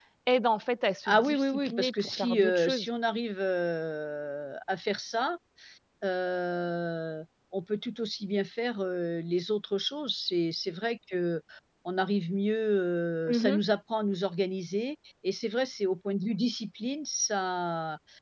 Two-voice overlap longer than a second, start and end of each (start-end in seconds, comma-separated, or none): 1.1-2.9